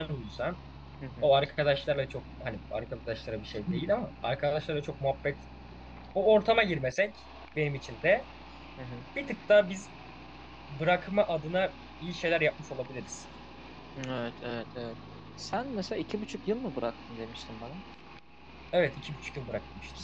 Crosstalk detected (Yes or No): No